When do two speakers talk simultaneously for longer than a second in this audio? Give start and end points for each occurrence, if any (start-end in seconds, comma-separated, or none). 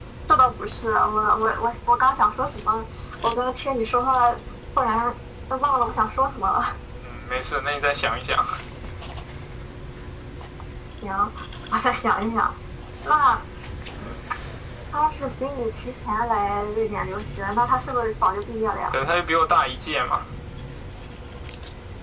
none